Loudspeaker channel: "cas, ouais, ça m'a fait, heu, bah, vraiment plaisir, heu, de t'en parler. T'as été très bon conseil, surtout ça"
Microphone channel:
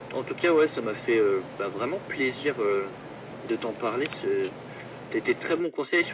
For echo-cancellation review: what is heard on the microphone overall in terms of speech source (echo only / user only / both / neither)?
echo only